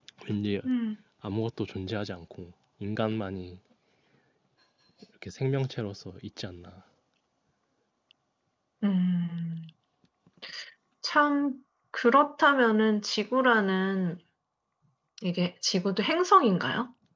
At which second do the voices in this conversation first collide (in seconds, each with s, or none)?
none